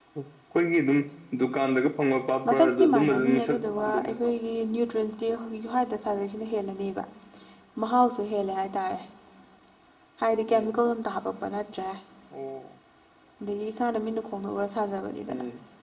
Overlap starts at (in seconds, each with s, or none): 2.4 s